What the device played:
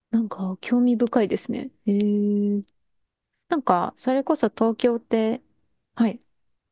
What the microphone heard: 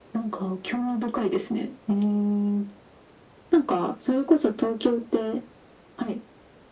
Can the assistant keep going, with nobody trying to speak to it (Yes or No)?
Yes